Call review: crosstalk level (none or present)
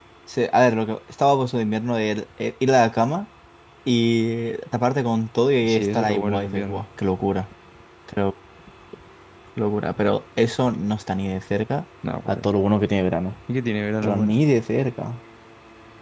present